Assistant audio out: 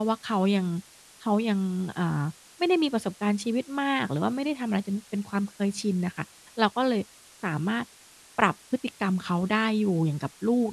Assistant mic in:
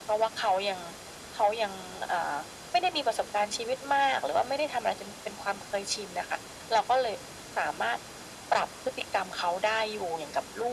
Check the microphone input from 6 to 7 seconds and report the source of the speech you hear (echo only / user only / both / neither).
echo only